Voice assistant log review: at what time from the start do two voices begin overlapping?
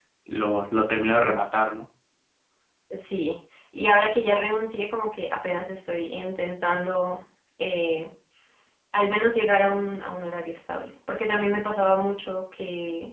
none

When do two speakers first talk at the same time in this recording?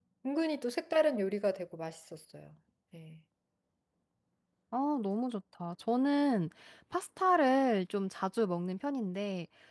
none

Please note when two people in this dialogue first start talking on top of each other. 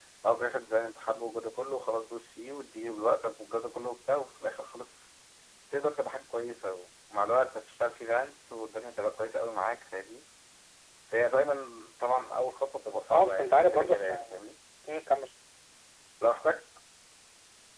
13.1 s

